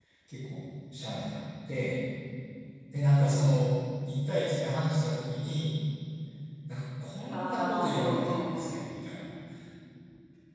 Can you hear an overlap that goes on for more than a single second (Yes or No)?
Yes